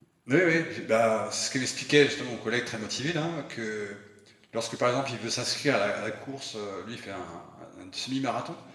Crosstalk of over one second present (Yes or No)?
No